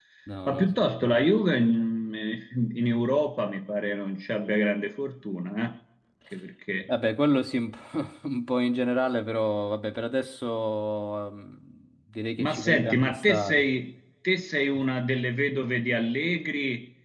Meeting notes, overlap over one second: present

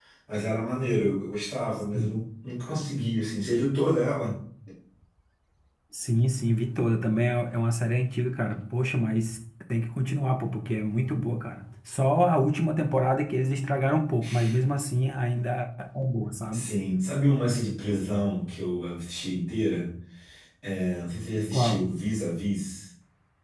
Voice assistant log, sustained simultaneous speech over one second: none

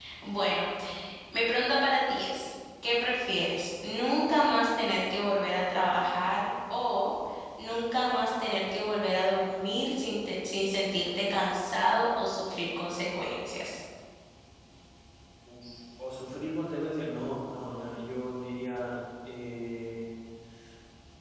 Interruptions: none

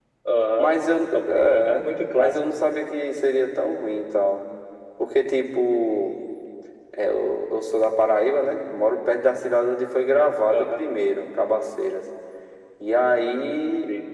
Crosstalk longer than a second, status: present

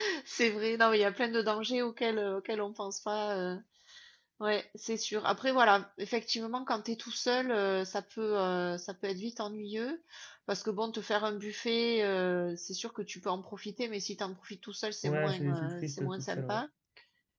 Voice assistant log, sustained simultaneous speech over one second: present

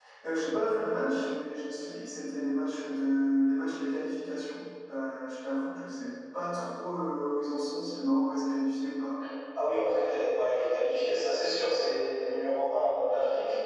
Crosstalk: none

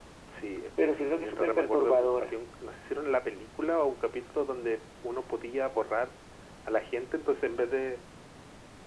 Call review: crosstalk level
present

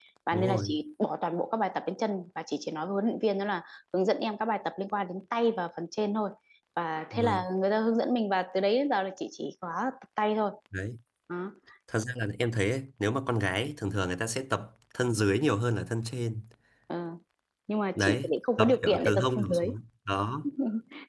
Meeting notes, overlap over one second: present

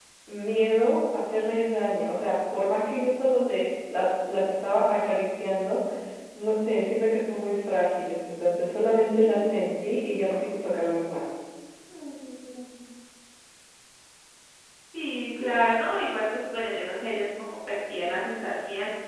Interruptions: none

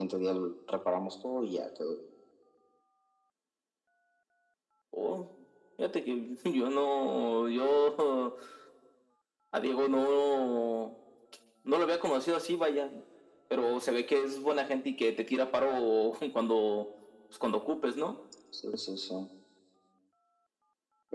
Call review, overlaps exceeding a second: none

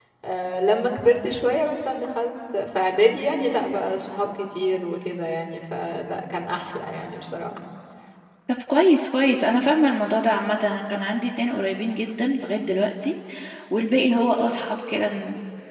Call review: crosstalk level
none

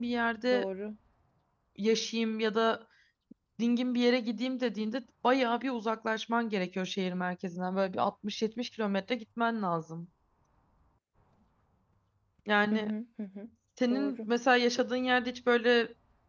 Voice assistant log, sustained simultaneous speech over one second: none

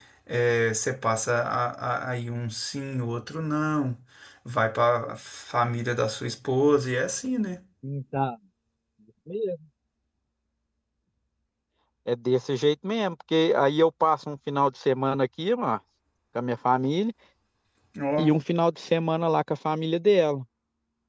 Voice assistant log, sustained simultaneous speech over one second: none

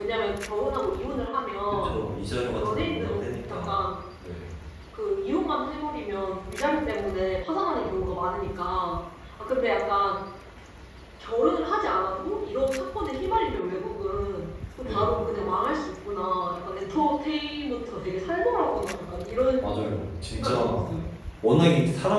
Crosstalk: present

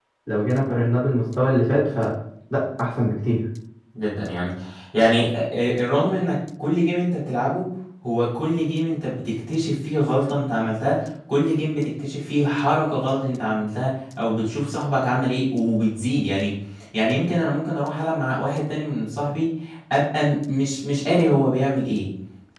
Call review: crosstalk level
none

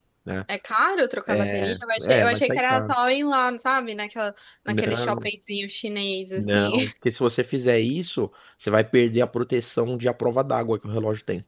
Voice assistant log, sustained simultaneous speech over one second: present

